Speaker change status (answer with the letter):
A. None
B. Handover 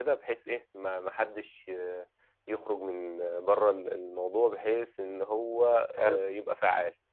A